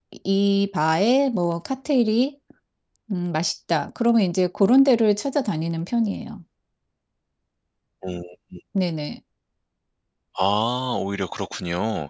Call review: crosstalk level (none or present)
none